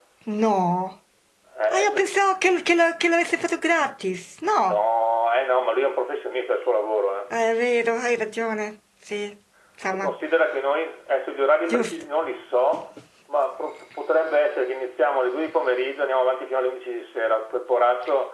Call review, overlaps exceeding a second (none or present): none